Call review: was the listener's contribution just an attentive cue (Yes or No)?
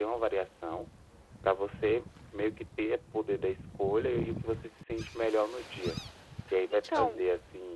Yes